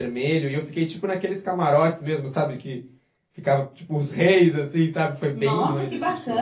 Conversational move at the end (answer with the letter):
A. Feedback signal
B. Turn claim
B